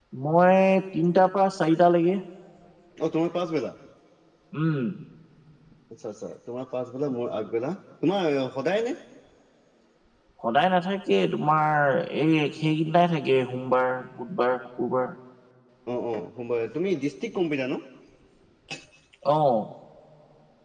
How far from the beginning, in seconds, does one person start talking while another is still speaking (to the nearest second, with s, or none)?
none